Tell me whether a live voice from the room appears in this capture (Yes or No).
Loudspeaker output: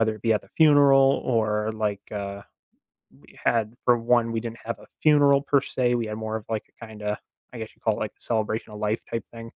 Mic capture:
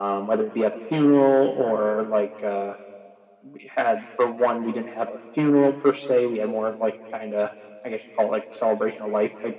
No